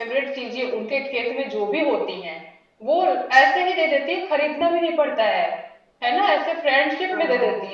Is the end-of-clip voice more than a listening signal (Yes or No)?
No